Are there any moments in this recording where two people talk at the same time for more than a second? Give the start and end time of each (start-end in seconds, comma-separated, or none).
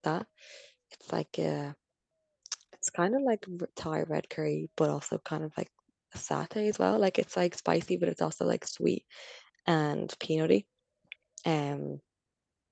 none